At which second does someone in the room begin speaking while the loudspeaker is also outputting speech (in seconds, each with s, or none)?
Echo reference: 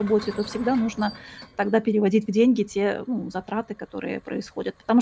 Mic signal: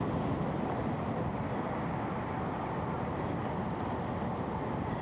none